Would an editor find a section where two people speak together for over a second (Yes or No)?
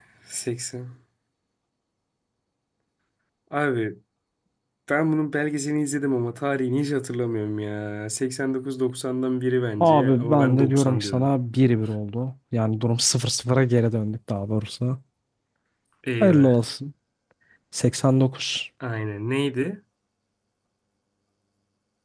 Yes